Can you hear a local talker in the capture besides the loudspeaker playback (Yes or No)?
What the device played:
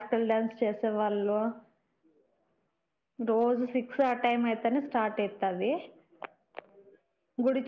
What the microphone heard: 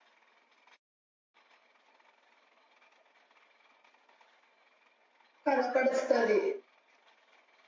Yes